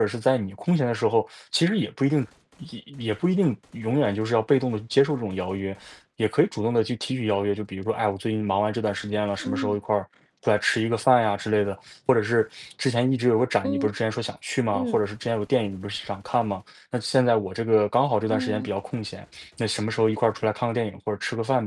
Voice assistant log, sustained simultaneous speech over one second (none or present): none